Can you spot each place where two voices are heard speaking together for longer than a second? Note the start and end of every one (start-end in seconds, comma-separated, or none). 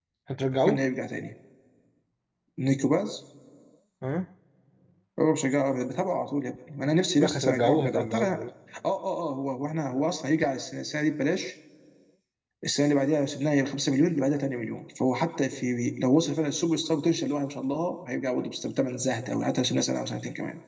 7.2-8.4